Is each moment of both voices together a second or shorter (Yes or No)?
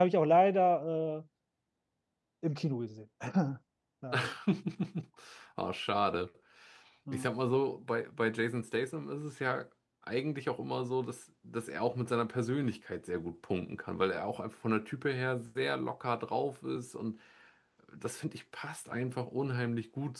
Yes